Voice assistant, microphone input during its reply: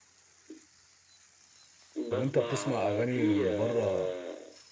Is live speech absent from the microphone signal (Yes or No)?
No